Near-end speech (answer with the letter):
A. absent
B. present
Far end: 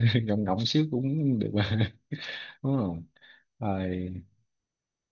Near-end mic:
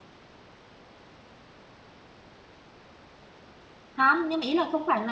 B